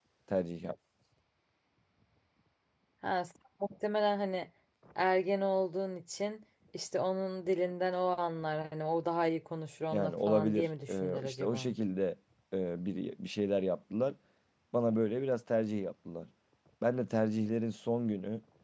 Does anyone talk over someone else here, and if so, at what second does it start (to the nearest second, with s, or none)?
10 s